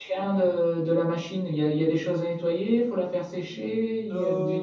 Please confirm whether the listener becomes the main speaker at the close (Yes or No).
Yes